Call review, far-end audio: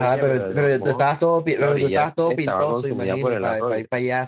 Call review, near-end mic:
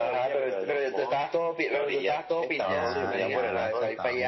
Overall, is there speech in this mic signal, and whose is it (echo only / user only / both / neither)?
both